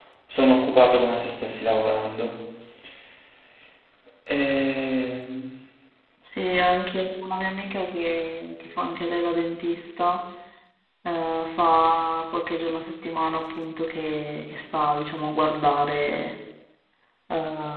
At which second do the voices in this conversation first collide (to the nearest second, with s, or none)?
none